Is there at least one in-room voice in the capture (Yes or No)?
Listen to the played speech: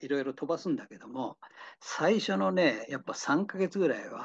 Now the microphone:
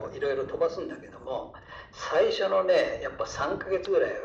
No